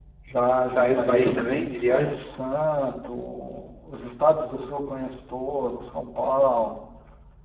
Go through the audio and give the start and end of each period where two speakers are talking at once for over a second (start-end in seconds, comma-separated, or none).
0.6-2.2